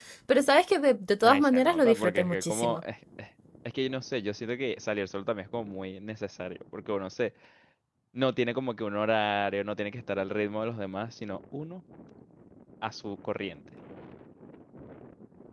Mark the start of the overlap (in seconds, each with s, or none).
1.2 s